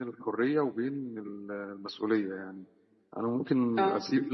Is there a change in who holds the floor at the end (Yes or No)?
No